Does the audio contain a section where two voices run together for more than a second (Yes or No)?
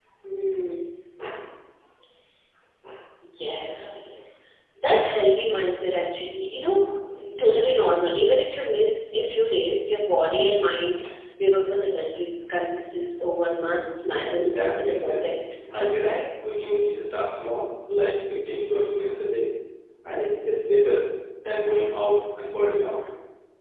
Yes